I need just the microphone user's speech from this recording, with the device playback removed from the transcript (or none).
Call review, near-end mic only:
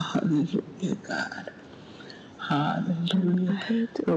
Um, I heard